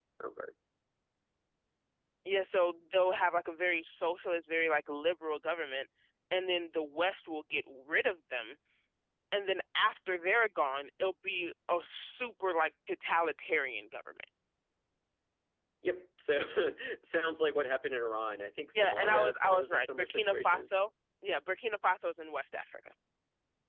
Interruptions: present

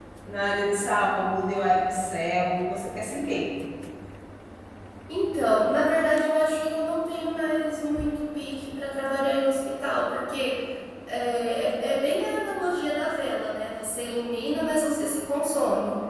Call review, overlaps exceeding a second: none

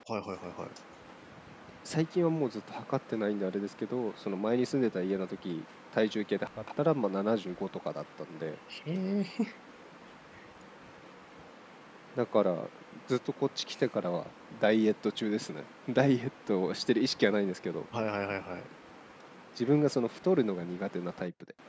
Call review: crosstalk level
none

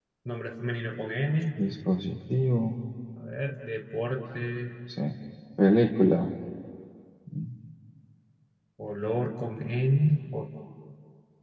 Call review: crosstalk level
none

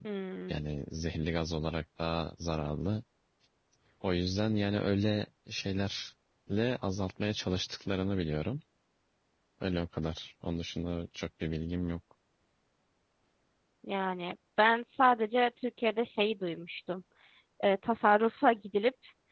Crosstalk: none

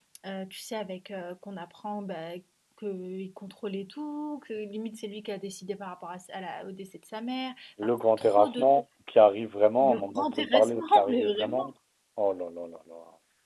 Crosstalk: present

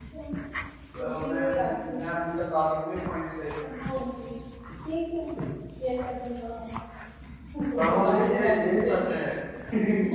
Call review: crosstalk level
present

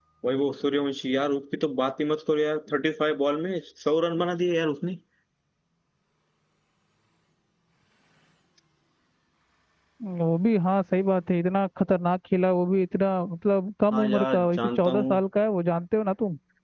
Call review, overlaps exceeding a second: present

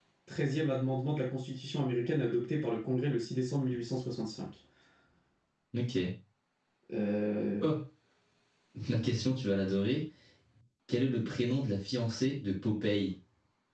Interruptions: none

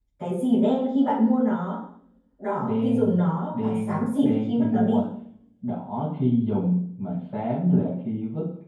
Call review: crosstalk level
present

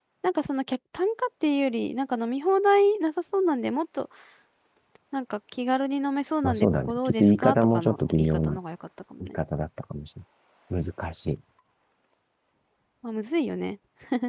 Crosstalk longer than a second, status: present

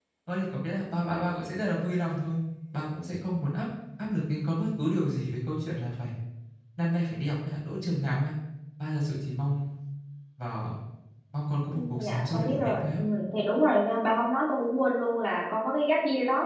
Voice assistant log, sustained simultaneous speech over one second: present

